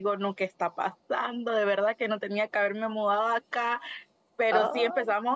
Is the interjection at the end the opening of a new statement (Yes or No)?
No